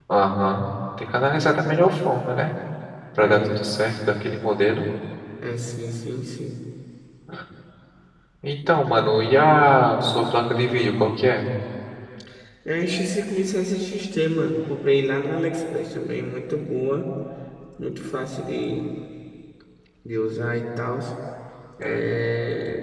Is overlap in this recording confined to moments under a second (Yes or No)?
Yes